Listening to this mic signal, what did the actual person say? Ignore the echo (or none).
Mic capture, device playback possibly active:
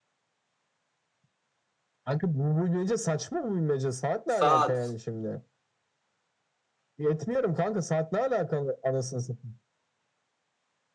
Saat.